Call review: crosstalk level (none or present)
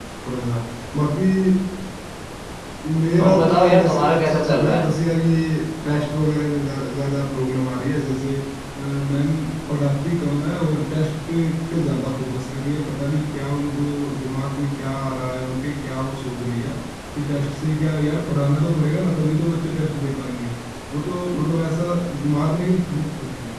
present